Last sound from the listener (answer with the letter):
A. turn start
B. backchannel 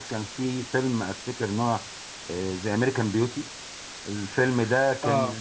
B